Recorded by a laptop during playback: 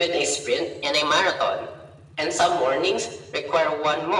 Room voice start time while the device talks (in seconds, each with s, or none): none